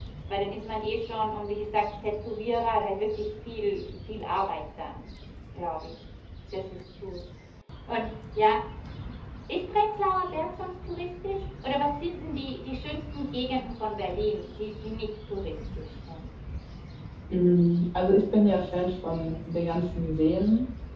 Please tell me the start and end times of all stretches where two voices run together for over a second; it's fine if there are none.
none

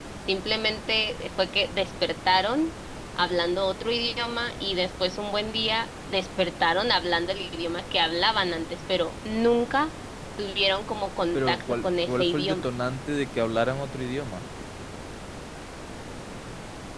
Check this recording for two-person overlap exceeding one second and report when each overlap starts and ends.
11.3-12.7

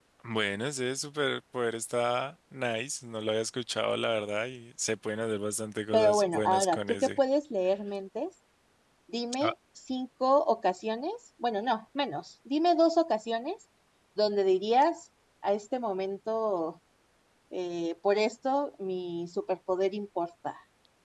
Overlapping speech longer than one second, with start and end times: 5.9-7.2

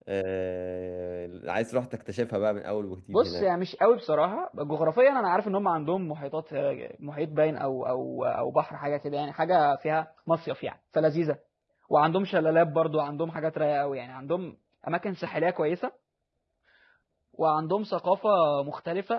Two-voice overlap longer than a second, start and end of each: none

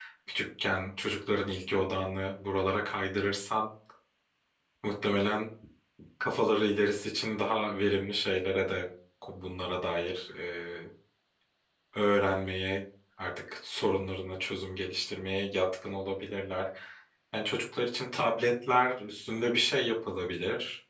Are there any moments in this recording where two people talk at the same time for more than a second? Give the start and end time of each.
none

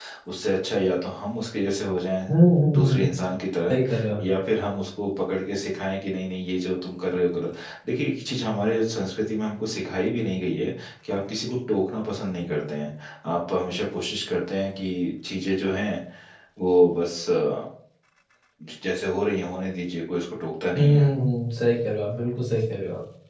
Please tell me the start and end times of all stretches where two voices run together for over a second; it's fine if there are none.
none

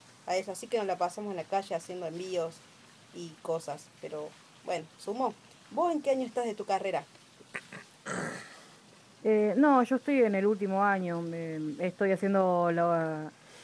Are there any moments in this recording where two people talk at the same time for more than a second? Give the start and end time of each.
none

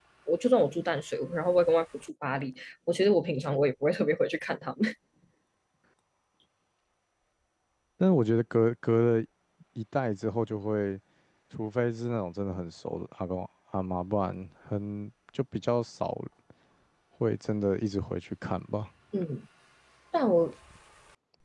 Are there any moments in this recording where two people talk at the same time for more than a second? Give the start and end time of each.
none

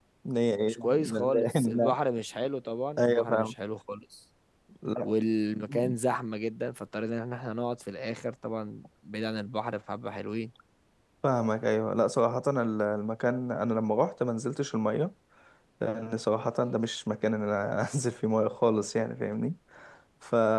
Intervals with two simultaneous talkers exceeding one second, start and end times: 0.6-1.9

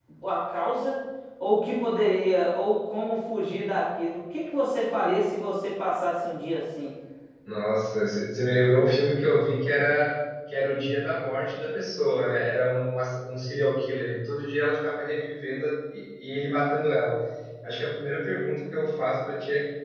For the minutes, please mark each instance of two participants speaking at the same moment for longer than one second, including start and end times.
none

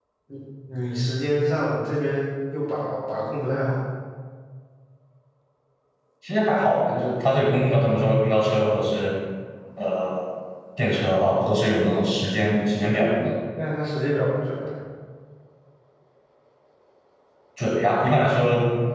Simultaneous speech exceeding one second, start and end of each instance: none

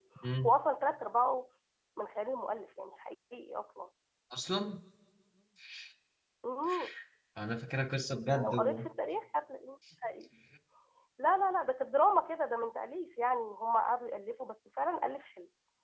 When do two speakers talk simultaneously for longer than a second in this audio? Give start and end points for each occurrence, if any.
none

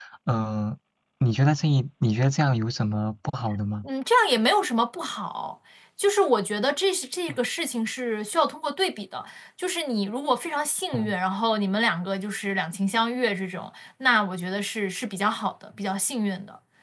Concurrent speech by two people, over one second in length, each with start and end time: none

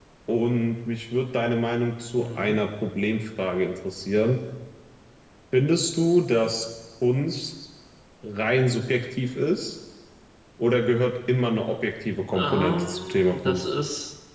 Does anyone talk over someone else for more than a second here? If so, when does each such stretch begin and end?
12.3-13.7

